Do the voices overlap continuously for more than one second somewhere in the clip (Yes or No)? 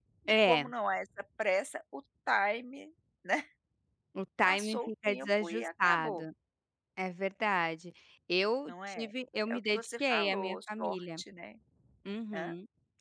Yes